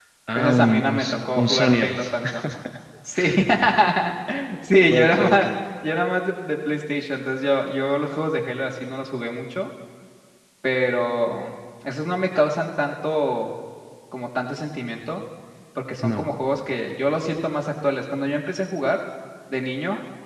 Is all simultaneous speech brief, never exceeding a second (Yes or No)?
No